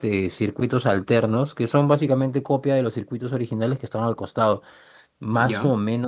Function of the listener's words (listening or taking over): listening